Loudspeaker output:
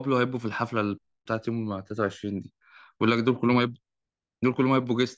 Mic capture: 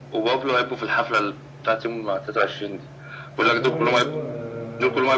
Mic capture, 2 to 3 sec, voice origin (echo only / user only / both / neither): echo only